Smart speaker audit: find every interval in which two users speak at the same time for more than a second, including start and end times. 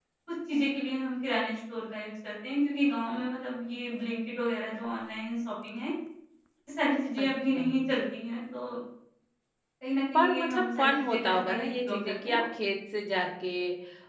10.1-12.4

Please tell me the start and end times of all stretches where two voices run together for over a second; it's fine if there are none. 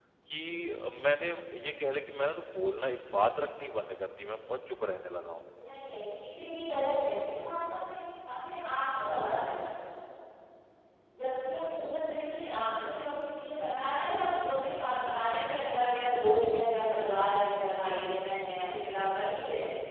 none

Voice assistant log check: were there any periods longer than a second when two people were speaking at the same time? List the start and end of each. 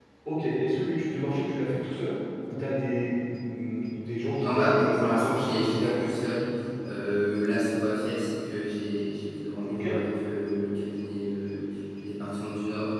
4.4-6.1

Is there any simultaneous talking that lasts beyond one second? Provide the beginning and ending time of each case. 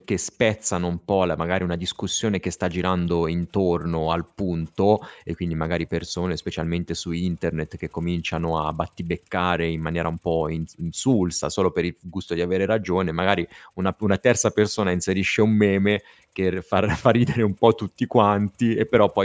none

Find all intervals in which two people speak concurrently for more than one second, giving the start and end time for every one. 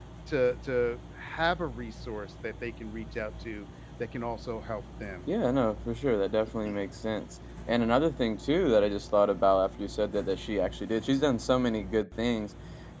none

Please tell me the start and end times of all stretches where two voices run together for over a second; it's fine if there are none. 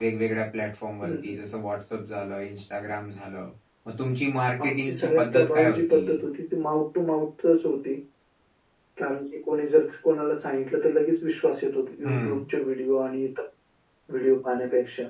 4.6-6.0

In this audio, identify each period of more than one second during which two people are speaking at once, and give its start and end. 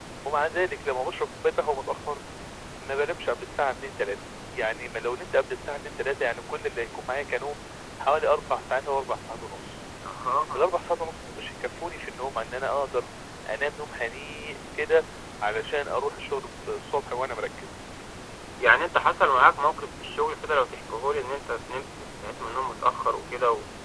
none

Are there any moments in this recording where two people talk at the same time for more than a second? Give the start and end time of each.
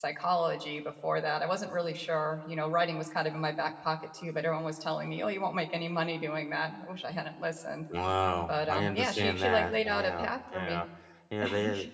8.5-10.8

